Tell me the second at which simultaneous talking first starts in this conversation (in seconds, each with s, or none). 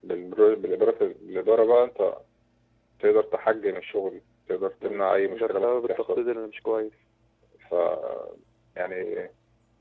4.8 s